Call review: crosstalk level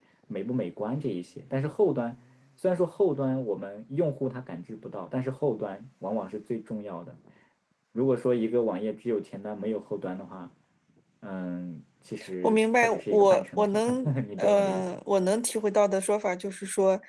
present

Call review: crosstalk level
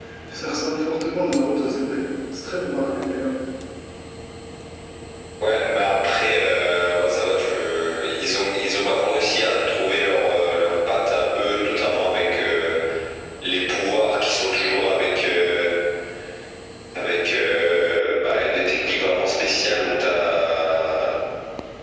none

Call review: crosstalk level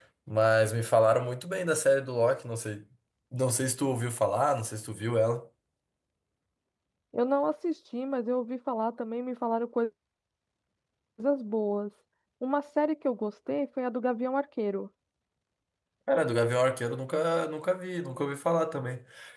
none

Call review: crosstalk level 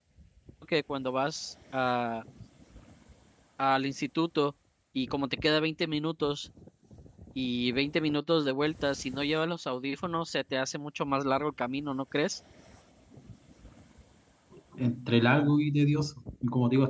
none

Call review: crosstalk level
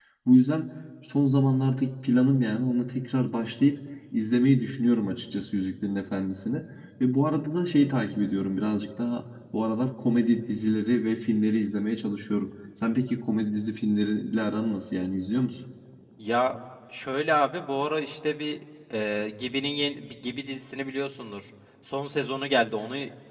none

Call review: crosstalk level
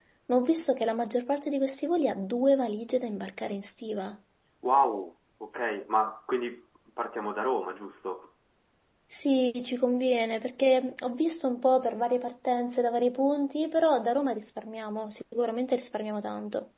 none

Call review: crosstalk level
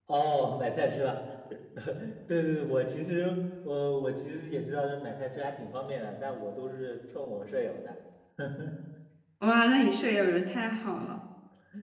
none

